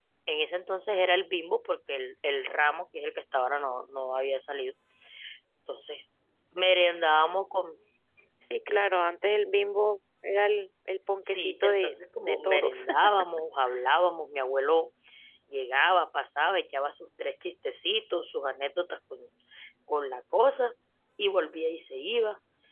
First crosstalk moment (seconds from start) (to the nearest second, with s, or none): 11 s